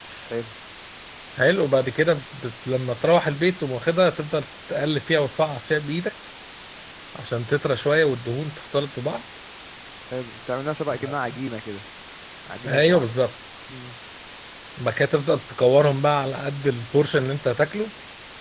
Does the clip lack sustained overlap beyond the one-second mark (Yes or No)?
Yes